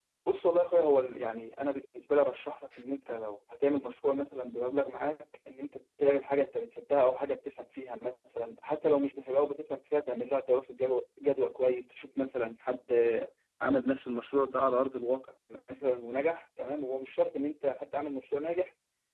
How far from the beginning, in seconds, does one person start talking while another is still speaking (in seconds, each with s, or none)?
none